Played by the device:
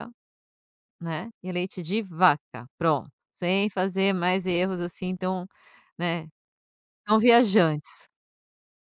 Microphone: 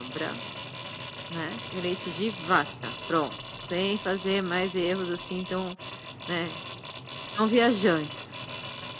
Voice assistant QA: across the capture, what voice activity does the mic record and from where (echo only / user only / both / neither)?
echo only